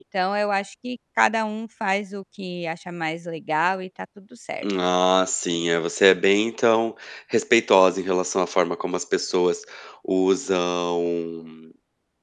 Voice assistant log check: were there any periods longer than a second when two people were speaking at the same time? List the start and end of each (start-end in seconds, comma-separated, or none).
none